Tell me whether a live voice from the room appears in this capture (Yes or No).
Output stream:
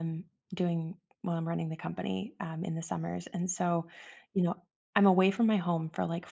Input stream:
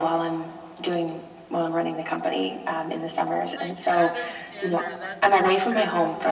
Yes